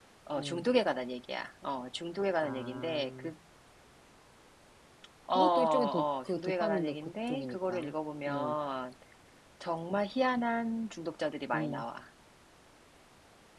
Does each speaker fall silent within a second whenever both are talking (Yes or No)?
No